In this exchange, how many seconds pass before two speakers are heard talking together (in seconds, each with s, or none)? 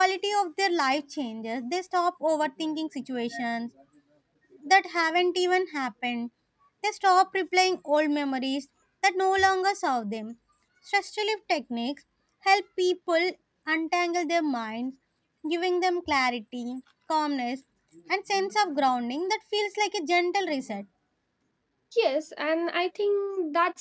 none